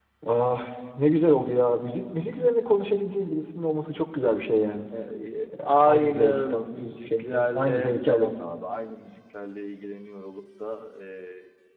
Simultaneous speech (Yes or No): Yes